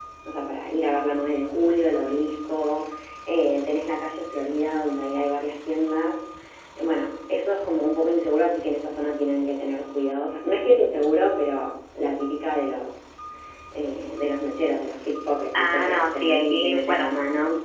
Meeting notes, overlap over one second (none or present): present